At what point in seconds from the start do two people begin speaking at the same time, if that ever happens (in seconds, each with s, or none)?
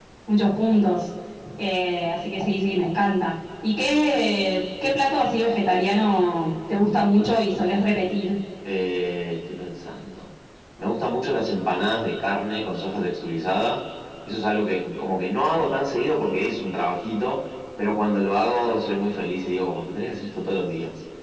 none